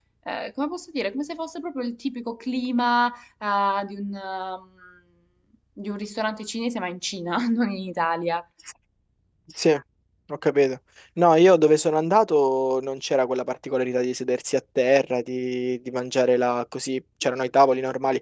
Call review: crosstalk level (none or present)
none